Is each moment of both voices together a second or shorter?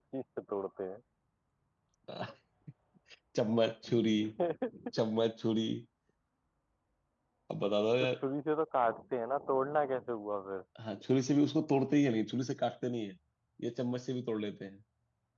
Yes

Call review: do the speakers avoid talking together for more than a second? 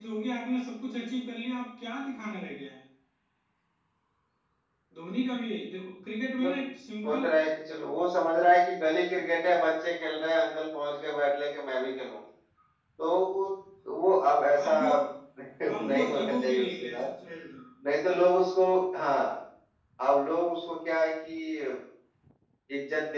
No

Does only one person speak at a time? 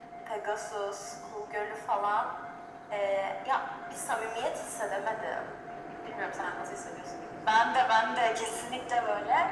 Yes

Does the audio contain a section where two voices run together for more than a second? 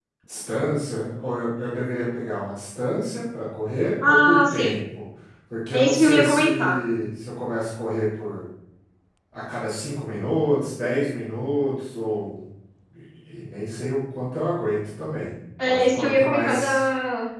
Yes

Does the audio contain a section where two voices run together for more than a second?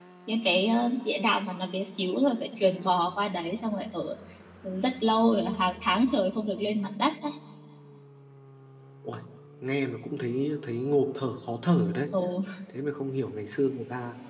No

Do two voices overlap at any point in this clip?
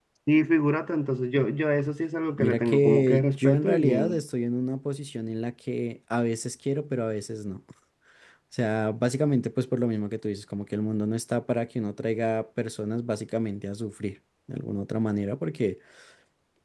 Yes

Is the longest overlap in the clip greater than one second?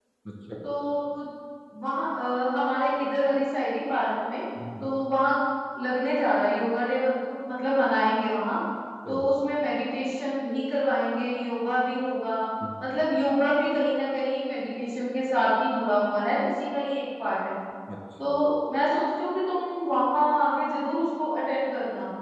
No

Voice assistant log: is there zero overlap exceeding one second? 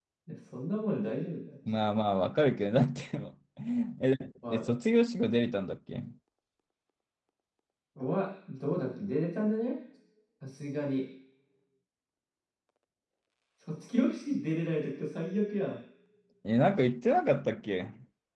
Yes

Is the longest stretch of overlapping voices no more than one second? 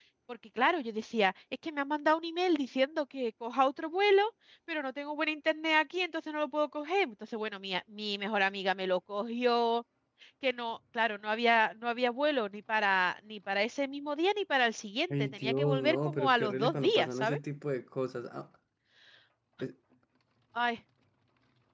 No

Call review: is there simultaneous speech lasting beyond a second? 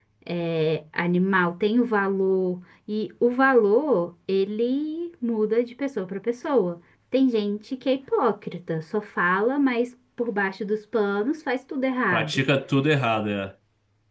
No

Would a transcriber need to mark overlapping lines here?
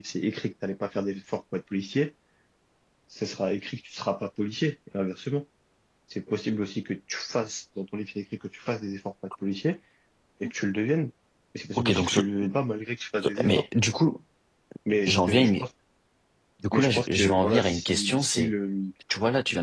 Yes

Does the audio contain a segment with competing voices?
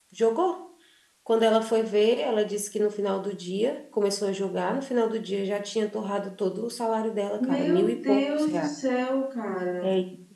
Yes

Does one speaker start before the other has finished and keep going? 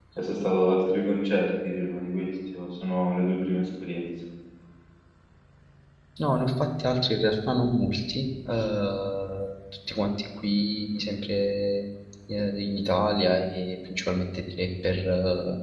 No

